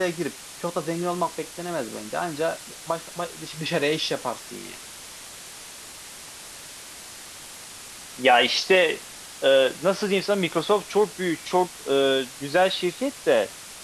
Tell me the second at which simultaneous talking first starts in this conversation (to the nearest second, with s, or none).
none